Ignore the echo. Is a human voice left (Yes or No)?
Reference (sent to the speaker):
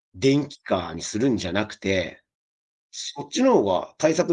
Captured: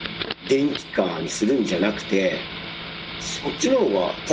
No